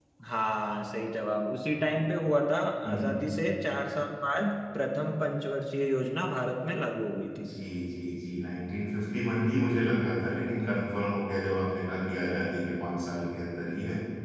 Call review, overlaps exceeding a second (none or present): none